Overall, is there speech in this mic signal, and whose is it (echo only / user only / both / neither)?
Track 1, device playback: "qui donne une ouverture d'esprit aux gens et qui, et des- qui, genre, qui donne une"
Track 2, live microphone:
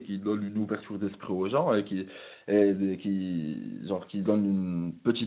echo only